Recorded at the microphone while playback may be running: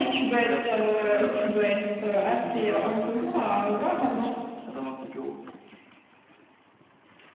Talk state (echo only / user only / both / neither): both